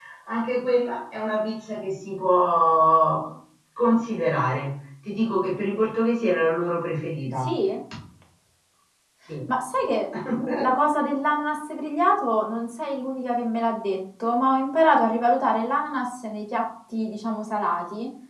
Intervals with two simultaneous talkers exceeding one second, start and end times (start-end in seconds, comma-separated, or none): none